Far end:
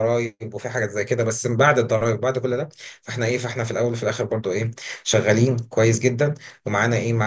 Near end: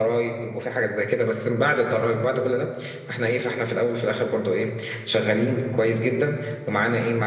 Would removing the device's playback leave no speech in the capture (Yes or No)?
Yes